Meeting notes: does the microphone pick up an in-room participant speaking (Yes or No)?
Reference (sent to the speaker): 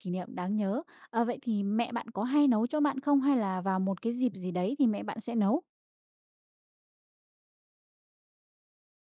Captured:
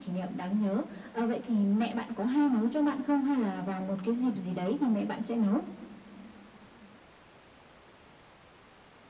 No